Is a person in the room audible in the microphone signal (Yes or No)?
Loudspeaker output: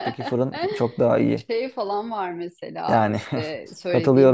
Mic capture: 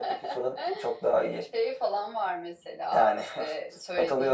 No